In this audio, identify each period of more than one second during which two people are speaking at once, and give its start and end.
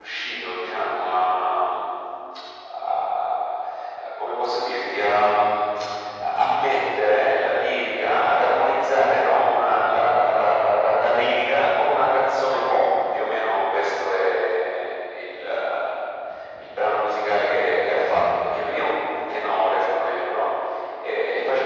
none

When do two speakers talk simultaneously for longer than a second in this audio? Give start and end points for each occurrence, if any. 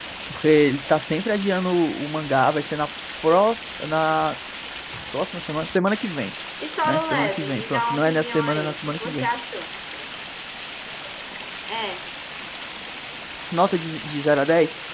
6.8-9.3

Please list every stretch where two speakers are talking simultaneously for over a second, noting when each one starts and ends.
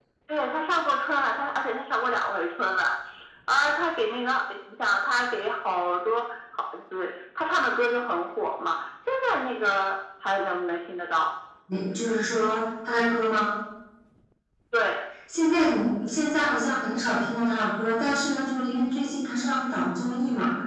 none

